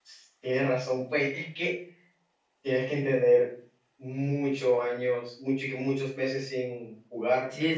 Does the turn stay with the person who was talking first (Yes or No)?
No